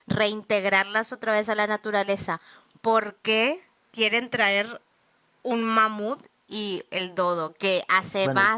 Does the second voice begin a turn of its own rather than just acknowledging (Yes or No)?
No